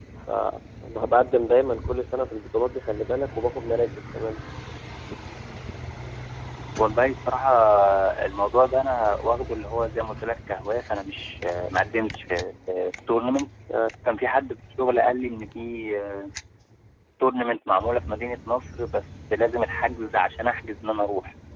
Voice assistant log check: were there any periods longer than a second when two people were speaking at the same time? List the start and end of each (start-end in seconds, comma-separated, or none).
none